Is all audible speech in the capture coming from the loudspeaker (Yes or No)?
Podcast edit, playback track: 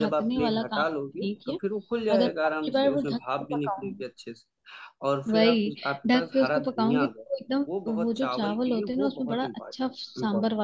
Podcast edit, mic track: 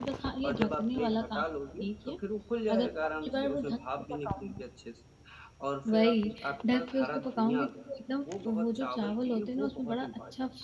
Yes